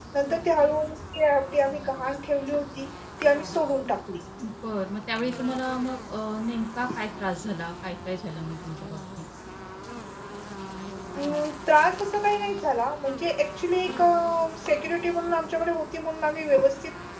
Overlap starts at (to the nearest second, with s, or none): none